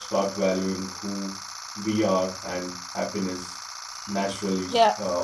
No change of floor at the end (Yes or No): No